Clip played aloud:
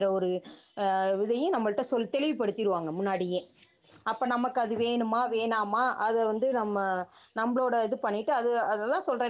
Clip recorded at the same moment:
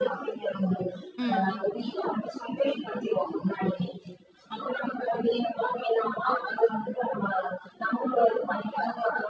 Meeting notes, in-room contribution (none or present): present